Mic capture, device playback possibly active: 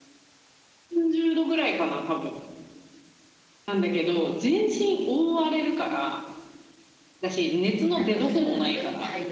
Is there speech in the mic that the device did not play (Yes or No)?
Yes